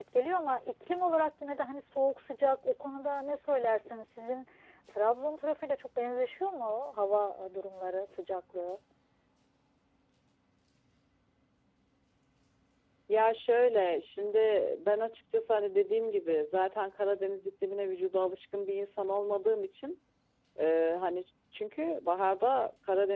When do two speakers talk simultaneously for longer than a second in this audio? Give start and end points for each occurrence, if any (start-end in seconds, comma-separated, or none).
none